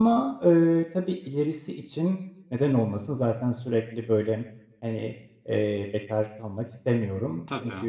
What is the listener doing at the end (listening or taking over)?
listening